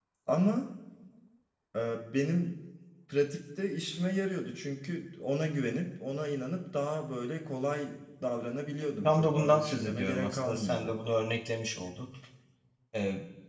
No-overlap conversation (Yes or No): No